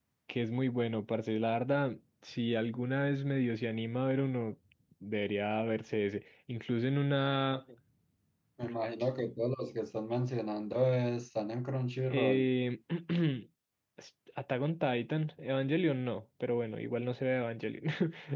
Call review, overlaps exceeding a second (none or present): none